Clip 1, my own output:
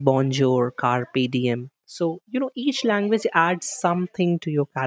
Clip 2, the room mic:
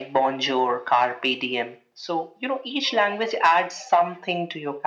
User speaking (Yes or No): No